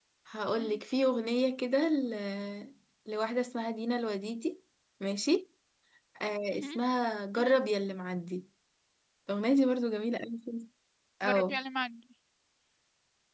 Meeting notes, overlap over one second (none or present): none